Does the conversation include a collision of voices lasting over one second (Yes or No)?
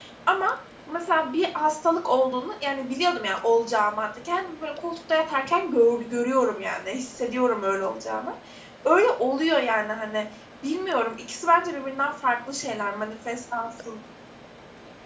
No